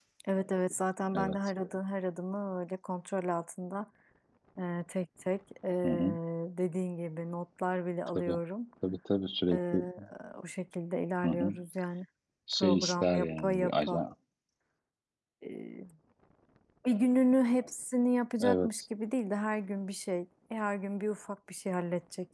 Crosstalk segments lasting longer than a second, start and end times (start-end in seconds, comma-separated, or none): 12.6-14.0